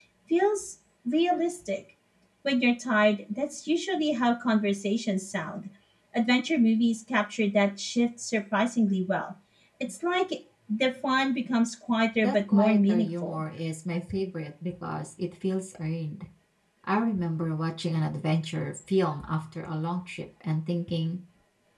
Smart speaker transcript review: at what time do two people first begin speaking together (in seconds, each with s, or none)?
12.2 s